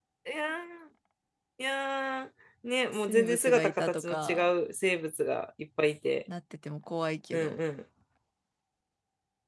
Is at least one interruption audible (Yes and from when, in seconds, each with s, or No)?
Yes, from 2.9 s